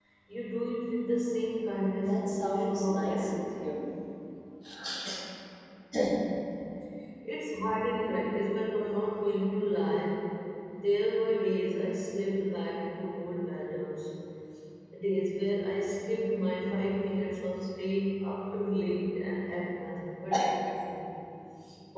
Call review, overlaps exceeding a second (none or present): present